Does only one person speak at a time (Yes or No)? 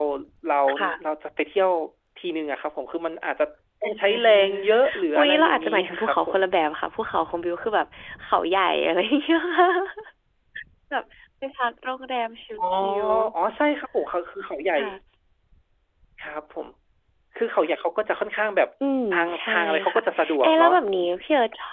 No